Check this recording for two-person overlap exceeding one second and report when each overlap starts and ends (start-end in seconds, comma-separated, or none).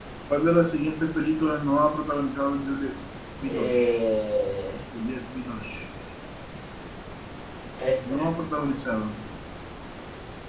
none